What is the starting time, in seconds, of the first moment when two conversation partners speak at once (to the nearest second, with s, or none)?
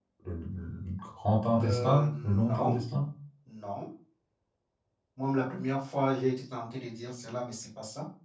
2 s